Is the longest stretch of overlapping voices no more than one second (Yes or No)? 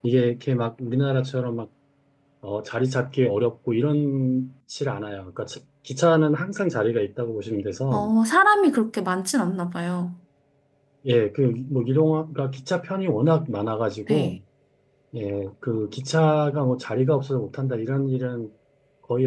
Yes